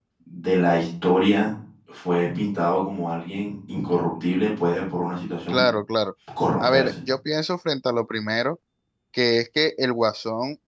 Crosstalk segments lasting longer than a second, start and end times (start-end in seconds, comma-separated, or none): none